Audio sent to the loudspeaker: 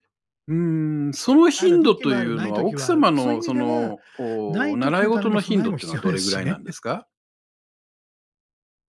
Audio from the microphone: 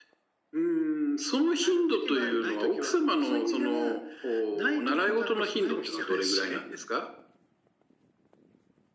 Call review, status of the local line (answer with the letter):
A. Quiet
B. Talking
A